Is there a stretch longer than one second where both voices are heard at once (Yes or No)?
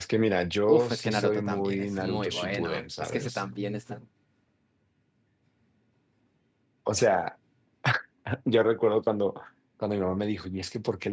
Yes